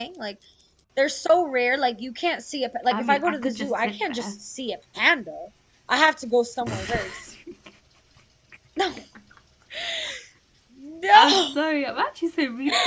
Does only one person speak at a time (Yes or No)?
No